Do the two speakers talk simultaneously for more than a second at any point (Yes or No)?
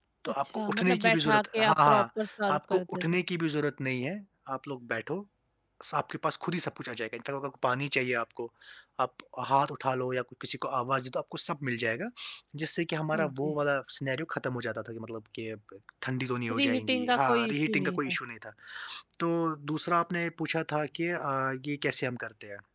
Yes